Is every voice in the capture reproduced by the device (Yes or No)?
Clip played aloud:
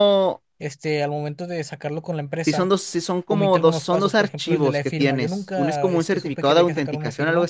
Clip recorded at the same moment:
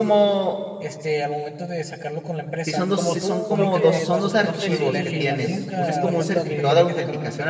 No